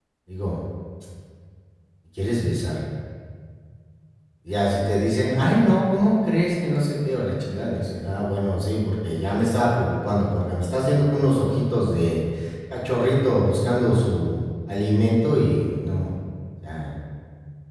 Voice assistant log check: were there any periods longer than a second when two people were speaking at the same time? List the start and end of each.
none

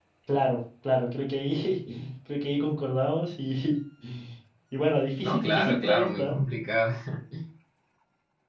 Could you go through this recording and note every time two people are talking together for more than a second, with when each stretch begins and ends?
5.2-6.4

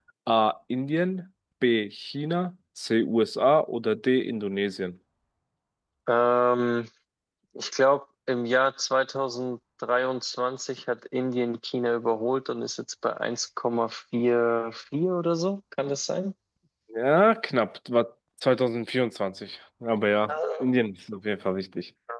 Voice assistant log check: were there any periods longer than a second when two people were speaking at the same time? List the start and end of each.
none

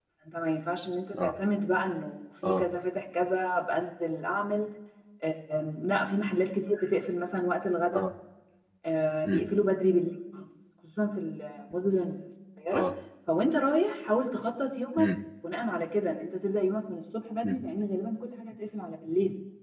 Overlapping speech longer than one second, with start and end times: none

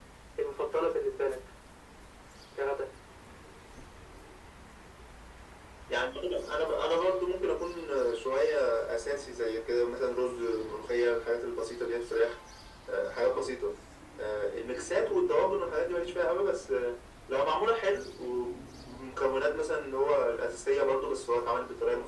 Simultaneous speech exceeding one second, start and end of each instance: none

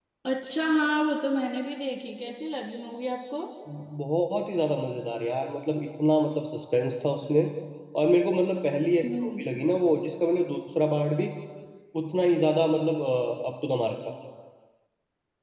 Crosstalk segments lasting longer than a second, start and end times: none

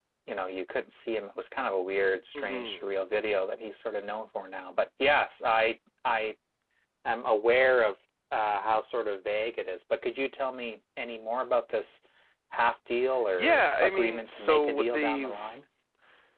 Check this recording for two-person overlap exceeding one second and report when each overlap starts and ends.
13.4-15.5

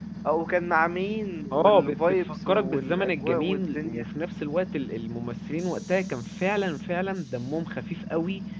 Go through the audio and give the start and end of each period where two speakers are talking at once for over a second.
1.5-4.1

